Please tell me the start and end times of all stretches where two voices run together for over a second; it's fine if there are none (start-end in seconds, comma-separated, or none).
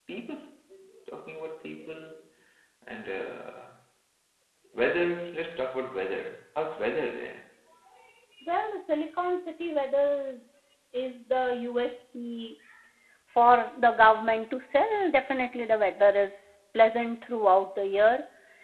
none